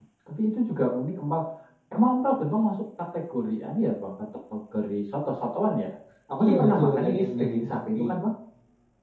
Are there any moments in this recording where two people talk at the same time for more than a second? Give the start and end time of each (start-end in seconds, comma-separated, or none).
6.4-8.0